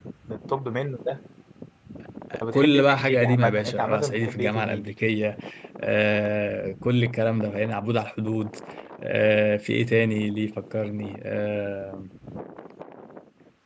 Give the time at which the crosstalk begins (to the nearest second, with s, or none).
3 s